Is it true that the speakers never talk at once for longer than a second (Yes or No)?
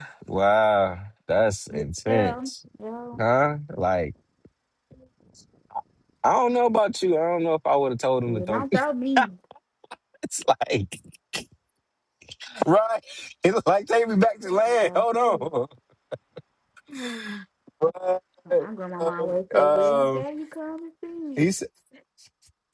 No